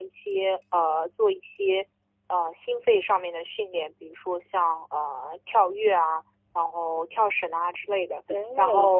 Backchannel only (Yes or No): Yes